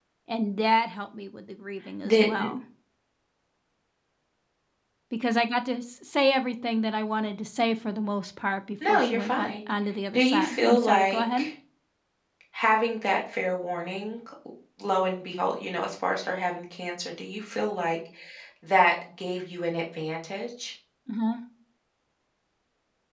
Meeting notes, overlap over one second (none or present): present